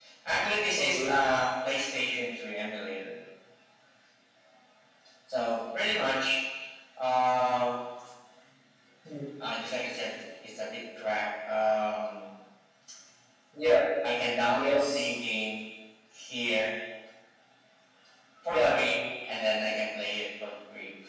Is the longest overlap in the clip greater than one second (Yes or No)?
No